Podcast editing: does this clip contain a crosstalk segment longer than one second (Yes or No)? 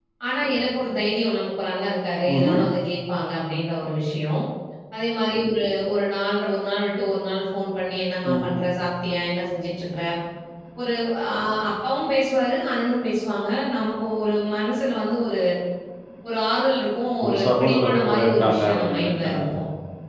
Yes